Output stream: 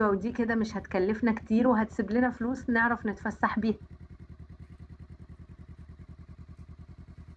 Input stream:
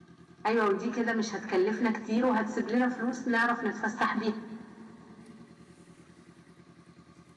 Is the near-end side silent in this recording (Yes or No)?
Yes